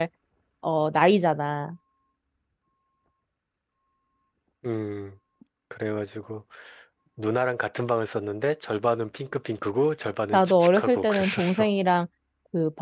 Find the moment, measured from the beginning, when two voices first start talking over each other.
10 s

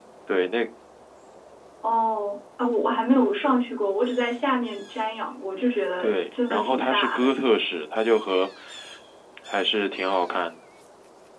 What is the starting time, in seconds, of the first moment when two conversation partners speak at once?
6 s

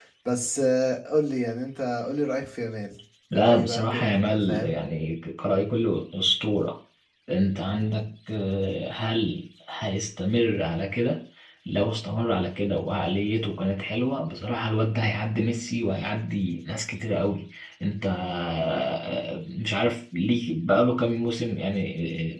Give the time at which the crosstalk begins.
3 s

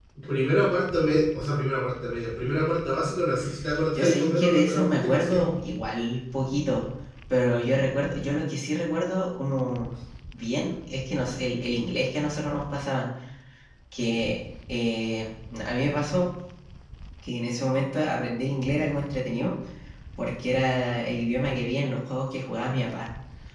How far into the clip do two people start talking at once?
4 s

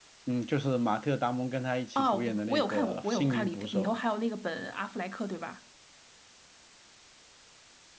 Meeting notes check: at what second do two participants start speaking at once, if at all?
2 s

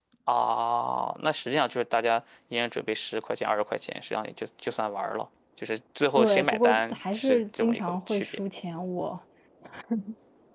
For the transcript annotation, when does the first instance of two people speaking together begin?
6 s

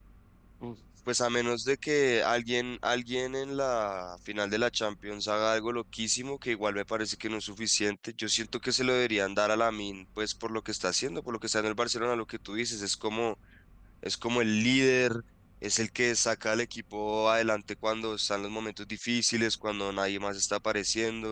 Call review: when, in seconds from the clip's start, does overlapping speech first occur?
none

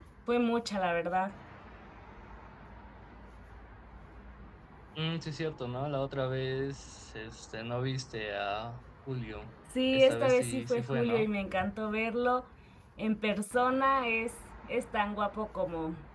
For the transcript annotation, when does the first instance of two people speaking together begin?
10 s

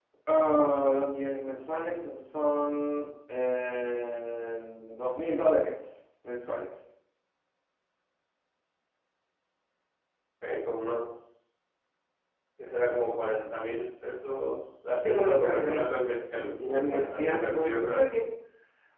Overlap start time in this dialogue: 15 s

